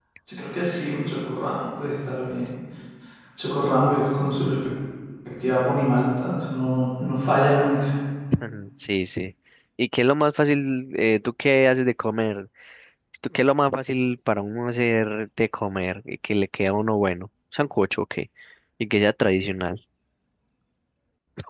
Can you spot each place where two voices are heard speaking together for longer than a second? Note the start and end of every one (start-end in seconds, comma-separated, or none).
none